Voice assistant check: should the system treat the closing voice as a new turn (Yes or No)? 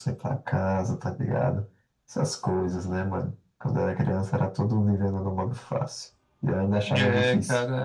Yes